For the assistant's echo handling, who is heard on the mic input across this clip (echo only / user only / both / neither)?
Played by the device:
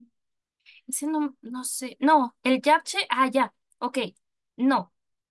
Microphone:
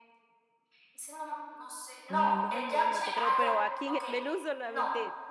both